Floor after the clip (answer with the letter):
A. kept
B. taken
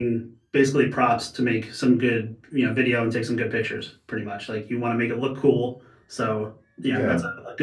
A